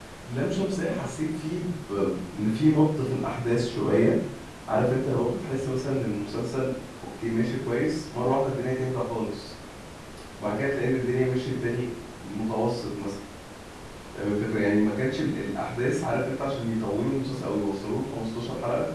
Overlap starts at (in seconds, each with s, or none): none